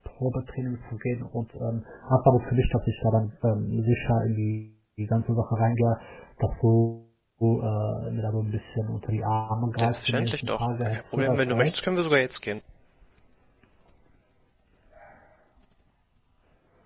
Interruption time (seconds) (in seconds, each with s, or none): 9.8 s